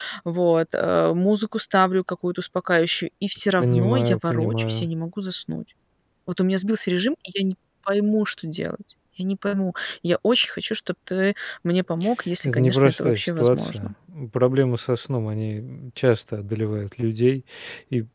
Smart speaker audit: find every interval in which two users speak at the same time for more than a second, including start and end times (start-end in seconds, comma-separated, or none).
3.6-4.9, 12.4-13.9